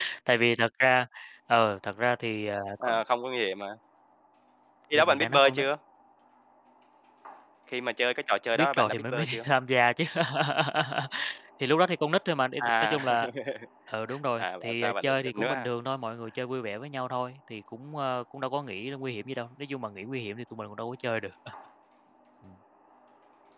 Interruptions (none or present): present